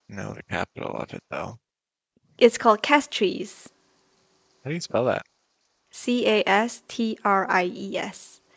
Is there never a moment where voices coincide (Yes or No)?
Yes